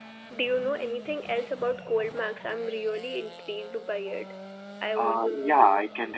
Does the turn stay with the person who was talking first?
No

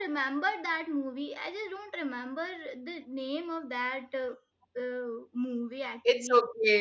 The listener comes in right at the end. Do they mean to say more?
Yes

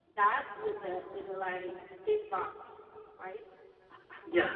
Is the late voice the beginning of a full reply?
Yes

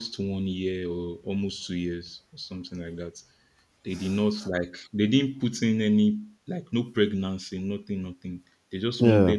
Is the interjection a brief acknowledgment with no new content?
Yes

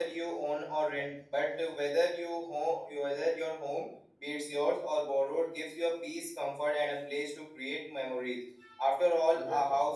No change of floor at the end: Yes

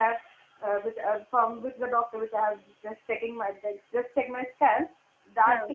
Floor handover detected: No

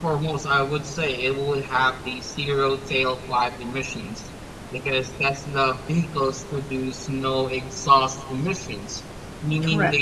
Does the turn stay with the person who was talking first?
Yes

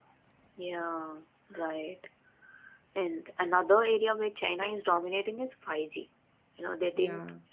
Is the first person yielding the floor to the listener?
No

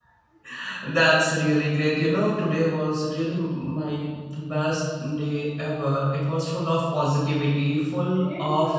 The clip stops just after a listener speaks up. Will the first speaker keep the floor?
Yes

